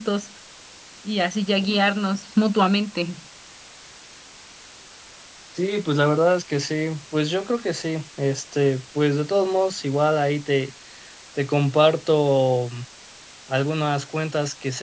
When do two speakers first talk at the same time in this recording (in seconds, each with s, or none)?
none